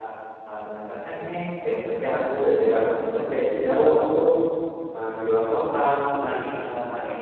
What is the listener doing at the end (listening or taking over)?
taking over